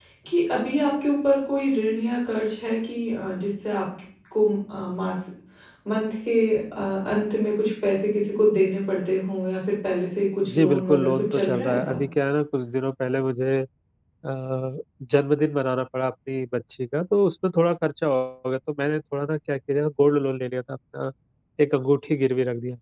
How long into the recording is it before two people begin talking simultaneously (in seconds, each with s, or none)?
10.5 s